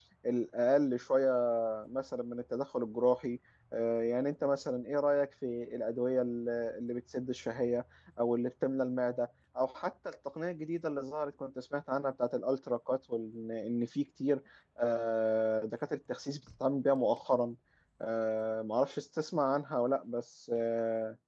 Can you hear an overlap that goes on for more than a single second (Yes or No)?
No